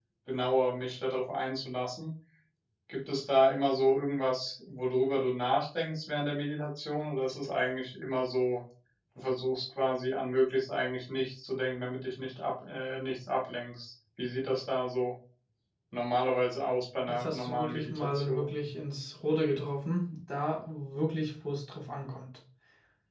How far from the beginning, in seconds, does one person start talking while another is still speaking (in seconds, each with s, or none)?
17.1 s